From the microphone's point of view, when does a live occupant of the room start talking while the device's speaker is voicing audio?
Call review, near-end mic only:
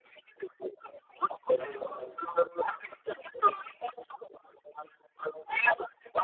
1.6 s

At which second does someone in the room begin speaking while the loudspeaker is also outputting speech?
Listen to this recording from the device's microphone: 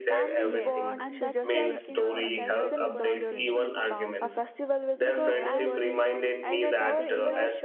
0.4 s

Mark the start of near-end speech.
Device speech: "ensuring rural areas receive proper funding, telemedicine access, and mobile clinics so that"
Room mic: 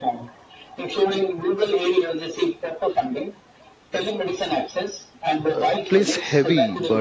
5.6 s

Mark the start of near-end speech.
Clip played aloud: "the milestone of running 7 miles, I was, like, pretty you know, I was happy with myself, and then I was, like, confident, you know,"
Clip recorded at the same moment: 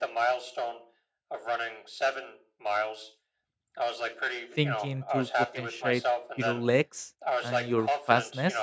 4.5 s

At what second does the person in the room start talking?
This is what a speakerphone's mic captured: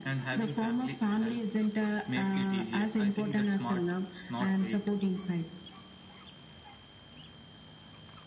none

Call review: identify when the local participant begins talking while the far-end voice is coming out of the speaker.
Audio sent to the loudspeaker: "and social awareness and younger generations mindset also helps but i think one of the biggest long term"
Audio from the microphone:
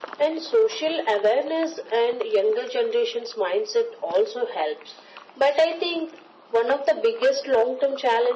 none

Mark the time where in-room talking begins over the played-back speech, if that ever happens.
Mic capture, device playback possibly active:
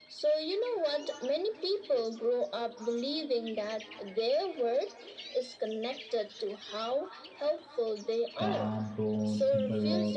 8.3 s

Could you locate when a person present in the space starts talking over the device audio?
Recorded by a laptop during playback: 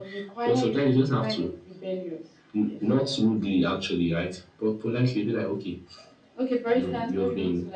none

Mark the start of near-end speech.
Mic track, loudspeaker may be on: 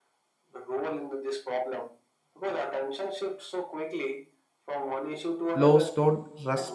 5.5 s

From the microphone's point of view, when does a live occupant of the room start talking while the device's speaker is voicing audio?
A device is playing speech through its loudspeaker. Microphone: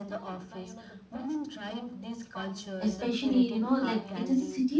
2.8 s

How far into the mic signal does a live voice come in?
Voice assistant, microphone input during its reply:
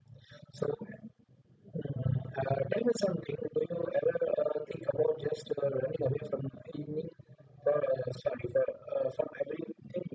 none

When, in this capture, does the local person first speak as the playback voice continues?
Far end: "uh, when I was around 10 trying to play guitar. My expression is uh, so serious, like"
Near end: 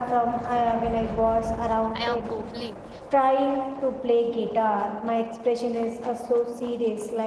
1.9 s

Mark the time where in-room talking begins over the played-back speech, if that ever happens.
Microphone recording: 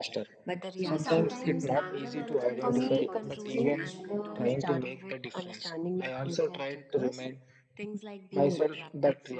0.8 s

